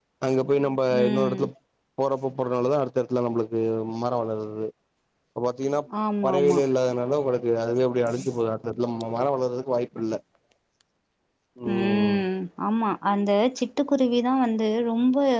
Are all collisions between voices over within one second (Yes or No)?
Yes